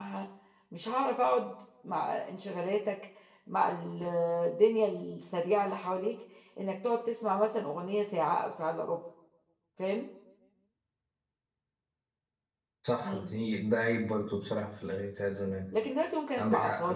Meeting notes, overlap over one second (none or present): none